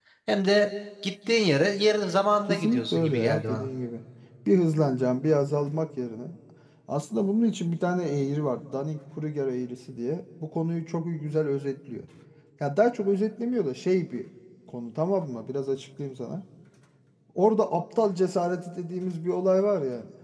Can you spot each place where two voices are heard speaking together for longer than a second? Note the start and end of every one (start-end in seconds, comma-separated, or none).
2.5-3.7